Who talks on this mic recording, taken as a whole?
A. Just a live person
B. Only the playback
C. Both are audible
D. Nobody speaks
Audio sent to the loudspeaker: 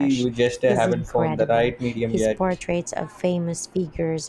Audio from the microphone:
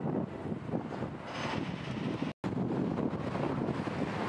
D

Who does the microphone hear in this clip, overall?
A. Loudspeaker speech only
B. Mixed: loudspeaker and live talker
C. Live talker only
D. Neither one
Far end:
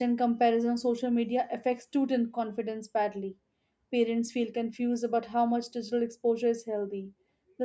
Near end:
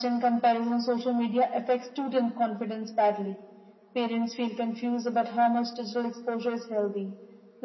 A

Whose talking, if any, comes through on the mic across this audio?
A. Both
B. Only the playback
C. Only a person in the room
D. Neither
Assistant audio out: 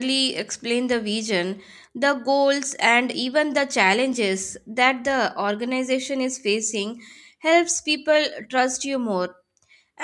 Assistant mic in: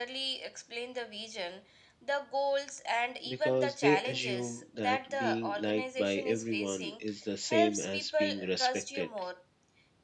A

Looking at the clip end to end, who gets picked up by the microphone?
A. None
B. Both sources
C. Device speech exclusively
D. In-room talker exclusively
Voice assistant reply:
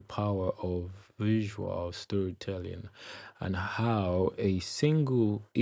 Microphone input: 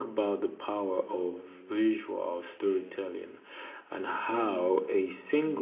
B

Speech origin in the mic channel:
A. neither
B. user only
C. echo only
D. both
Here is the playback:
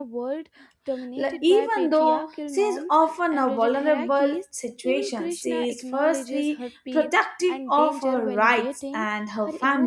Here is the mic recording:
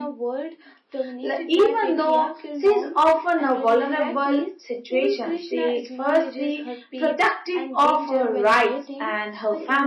C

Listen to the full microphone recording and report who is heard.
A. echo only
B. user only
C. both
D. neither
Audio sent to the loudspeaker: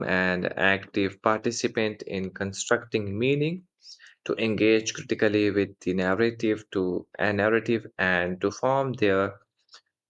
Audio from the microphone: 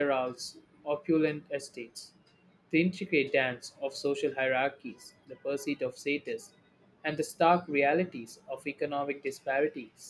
B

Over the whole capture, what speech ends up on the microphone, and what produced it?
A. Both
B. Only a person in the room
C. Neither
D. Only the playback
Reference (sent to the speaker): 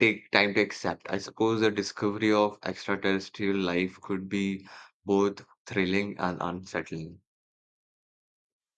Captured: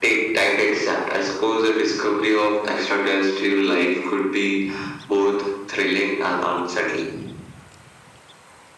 D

